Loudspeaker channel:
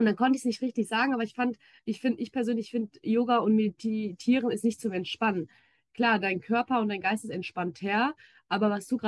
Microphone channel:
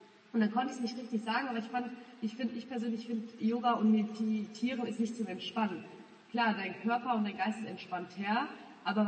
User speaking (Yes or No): No